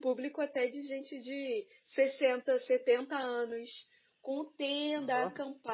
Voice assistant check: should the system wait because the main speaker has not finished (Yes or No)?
Yes